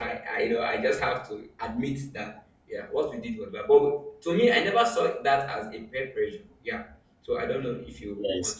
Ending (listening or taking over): taking over